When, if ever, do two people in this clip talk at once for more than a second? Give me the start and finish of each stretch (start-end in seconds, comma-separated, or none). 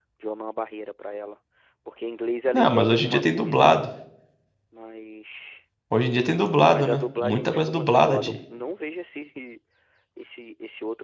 2.5-3.8, 6.7-8.4